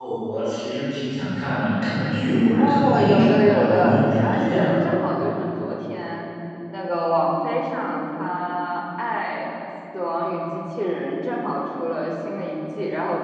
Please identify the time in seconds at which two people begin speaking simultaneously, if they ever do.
2.5 s

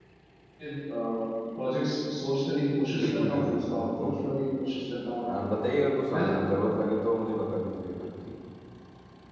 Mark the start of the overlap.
3.0 s

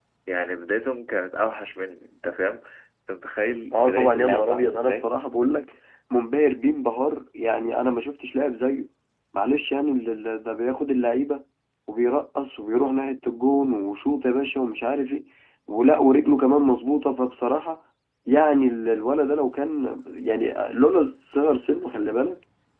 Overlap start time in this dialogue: 3.7 s

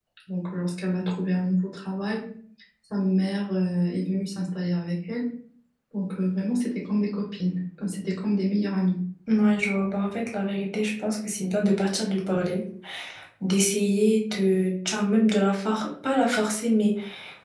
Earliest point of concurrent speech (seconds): none

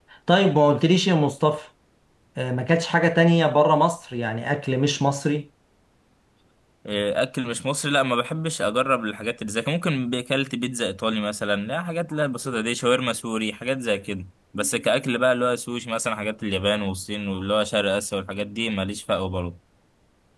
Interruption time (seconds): none

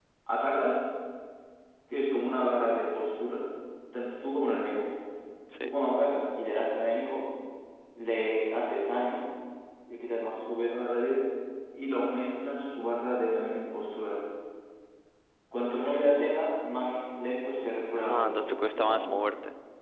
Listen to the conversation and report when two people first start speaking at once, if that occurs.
17.9 s

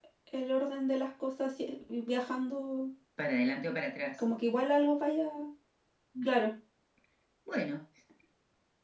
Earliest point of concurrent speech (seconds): none

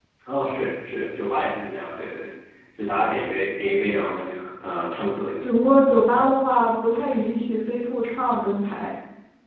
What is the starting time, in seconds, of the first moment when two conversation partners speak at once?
none

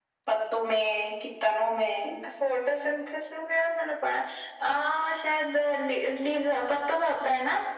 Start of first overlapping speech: none

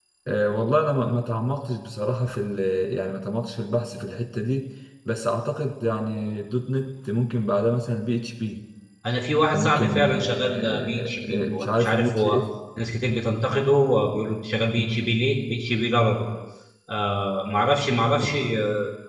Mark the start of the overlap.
9.5 s

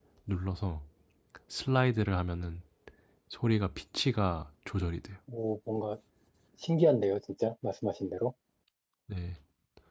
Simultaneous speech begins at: none

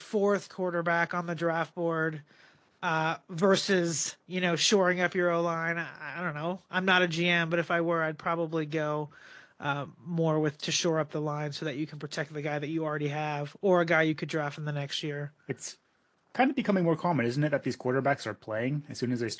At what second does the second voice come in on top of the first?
none

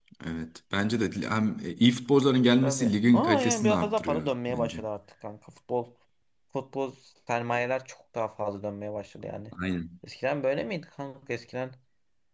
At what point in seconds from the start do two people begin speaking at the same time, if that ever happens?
2.6 s

